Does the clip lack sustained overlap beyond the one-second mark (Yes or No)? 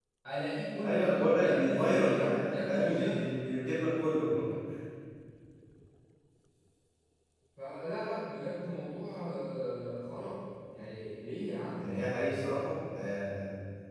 No